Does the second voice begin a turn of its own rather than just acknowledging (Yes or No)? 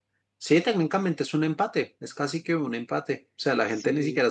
No